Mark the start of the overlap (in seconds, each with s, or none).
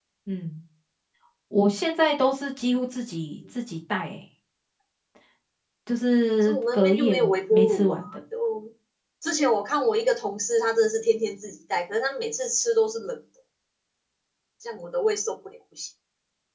6.4 s